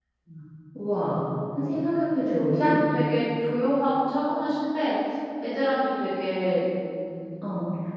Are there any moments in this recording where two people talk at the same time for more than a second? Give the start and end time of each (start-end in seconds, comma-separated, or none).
none